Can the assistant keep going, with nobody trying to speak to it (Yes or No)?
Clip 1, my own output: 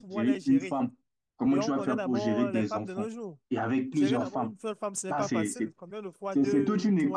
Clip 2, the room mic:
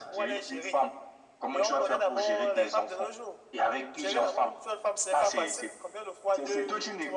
Yes